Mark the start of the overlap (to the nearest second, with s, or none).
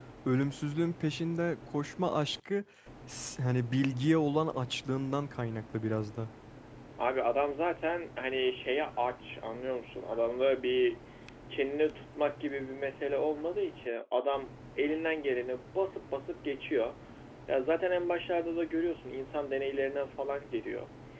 none